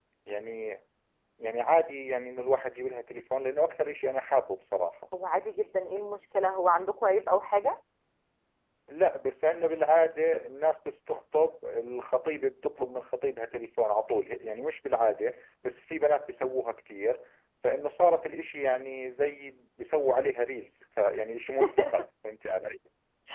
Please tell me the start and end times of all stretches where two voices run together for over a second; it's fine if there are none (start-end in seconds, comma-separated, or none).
none